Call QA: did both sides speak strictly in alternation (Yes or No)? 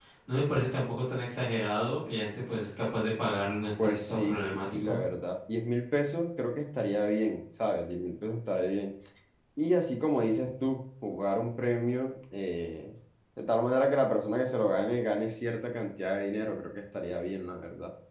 No